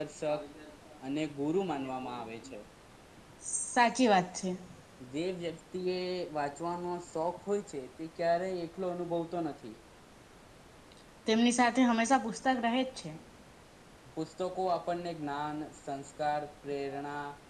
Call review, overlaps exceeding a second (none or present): none